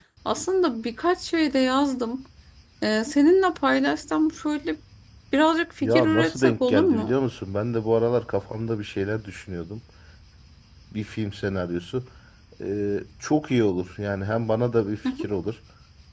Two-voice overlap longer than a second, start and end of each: 5.8-7.1

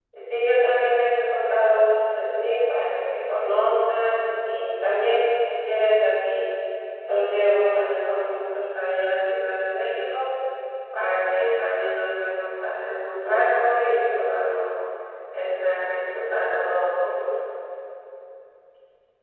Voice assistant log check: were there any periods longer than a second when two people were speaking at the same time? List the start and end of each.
none

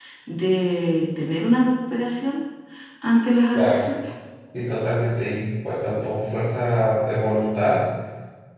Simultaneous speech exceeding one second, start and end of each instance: none

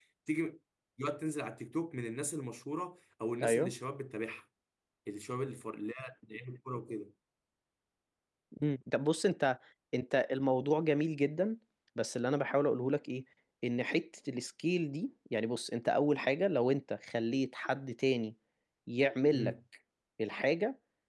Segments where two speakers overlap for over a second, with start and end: none

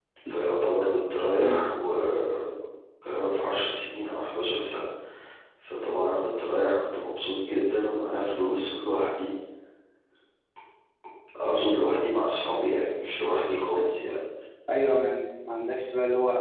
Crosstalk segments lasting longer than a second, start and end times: none

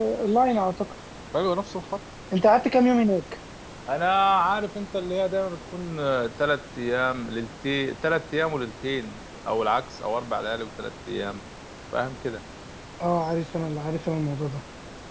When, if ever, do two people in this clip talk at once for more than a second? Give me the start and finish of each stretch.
none

